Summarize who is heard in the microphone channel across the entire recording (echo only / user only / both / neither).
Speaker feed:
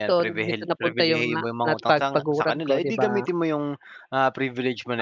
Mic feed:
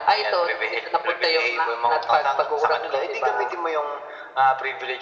echo only